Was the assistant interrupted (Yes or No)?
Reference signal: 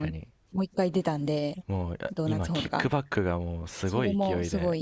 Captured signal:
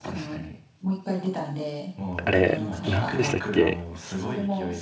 Yes